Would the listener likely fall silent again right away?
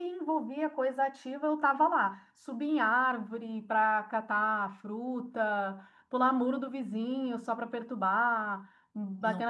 Yes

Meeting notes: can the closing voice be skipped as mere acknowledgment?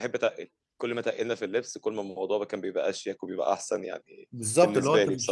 No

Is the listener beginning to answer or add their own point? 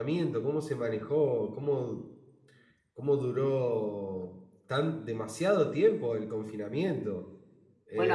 Yes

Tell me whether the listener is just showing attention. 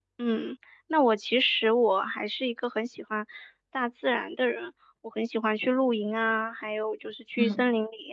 Yes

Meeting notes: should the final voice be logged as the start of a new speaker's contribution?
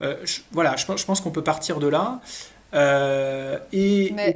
Yes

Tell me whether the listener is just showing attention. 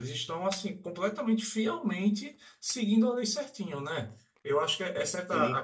Yes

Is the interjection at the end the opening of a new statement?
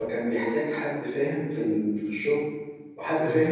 No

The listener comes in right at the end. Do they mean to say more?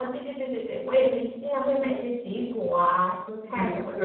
Yes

